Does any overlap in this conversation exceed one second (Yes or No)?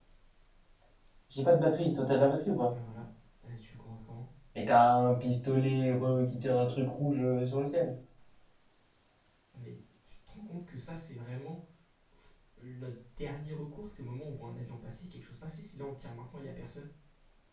No